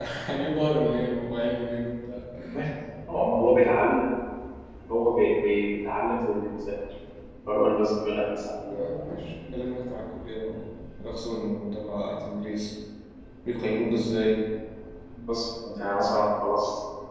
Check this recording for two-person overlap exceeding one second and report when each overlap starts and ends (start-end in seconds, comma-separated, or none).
none